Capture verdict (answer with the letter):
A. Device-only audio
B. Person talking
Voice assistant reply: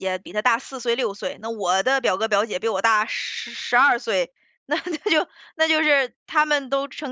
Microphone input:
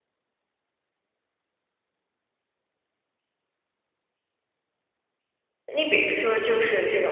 B